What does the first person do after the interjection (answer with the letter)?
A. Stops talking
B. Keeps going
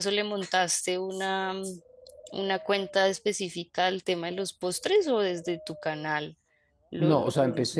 A